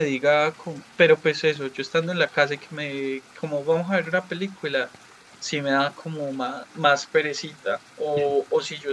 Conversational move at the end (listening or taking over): listening